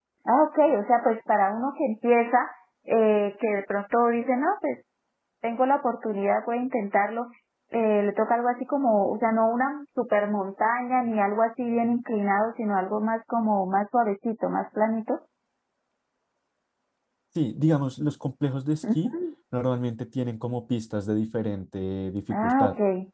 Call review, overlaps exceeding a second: none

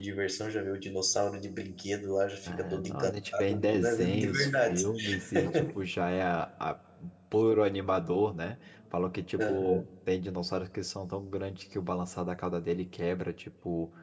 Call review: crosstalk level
present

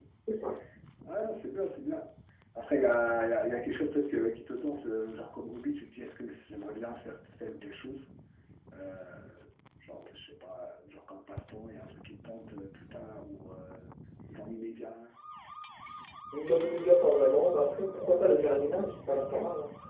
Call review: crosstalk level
none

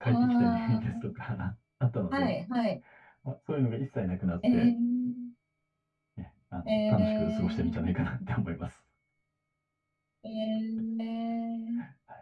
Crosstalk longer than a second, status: present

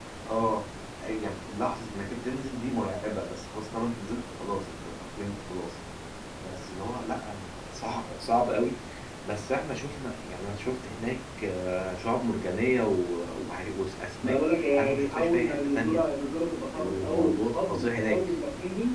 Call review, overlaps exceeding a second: present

